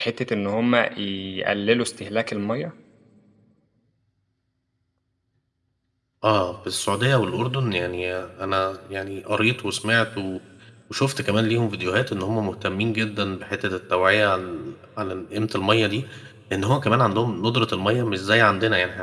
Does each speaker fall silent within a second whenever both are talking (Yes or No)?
Yes